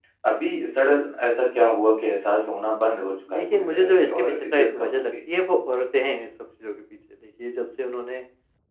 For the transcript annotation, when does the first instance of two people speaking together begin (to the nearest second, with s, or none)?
3 s